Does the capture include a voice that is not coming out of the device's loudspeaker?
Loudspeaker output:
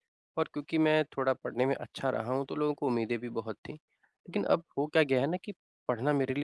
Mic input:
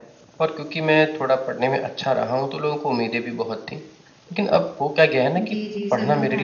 Yes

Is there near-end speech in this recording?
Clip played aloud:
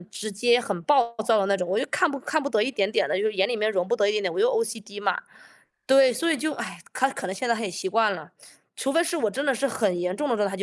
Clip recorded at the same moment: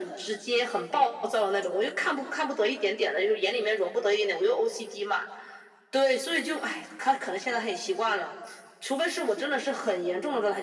No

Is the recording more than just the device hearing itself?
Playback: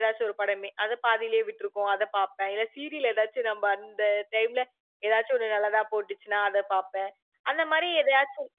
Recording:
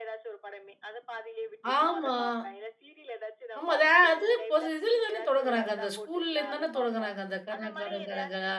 Yes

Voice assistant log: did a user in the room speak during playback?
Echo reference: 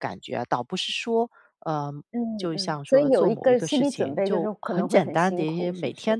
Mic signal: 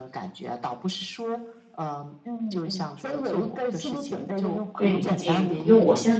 Yes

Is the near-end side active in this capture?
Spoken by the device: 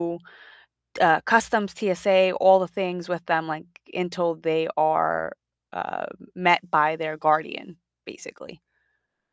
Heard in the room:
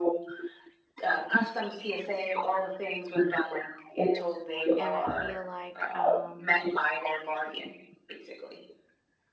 Yes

